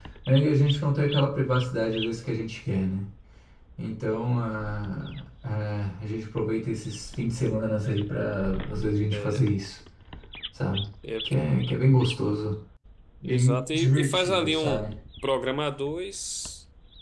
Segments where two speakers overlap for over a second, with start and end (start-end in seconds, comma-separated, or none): 13.2-14.8